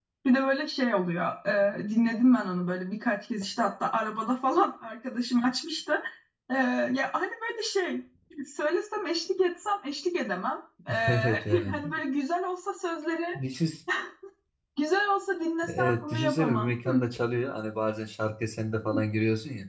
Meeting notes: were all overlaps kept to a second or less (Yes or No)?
No